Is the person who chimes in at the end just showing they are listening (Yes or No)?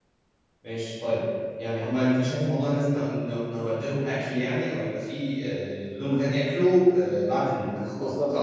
No